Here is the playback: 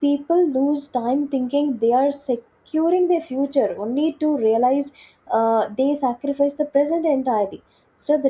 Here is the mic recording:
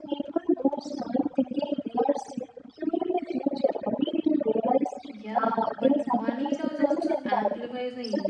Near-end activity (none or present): present